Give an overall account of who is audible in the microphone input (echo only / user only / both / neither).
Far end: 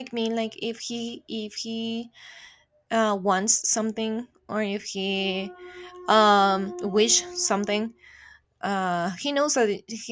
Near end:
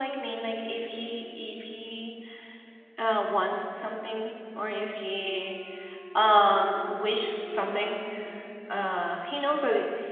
echo only